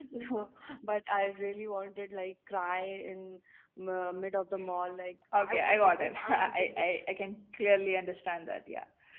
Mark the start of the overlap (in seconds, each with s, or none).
5.4 s